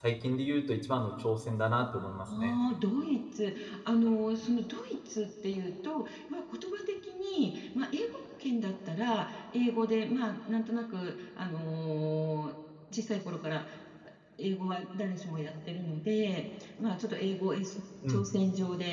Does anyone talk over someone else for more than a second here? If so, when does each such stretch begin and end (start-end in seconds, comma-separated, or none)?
none